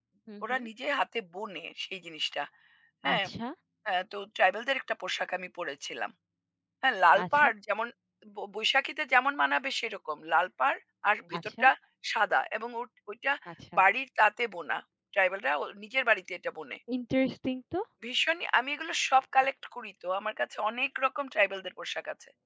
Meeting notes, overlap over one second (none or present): none